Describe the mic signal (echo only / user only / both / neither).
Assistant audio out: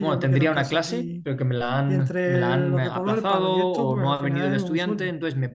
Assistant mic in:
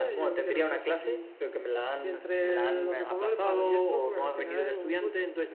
echo only